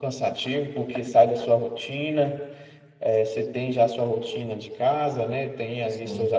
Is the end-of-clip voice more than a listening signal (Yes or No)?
No